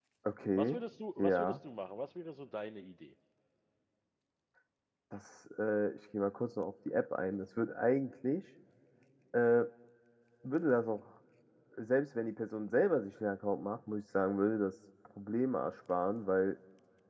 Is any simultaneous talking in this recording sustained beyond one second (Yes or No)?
No